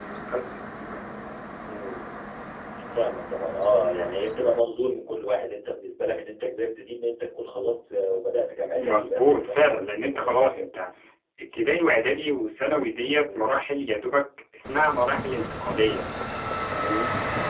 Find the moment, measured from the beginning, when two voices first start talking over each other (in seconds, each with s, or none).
8.8 s